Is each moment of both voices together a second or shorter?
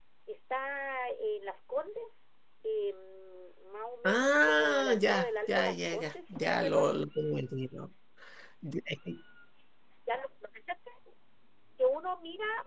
No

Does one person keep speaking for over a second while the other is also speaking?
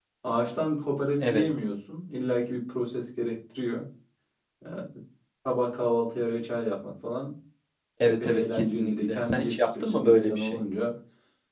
Yes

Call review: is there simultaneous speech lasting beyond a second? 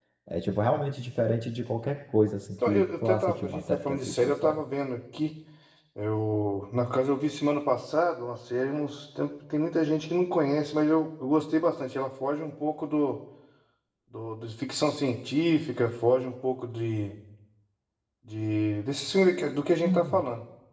Yes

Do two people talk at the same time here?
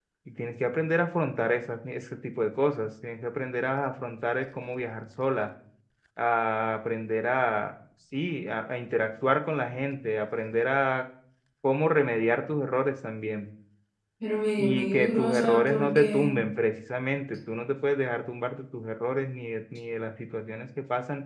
Yes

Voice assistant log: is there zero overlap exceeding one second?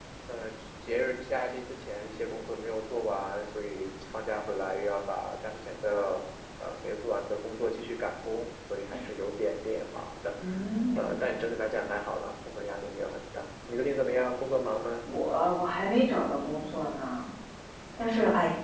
Yes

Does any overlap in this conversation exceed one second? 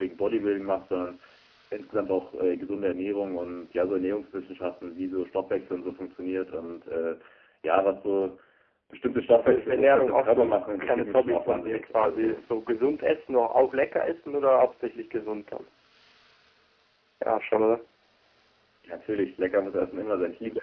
Yes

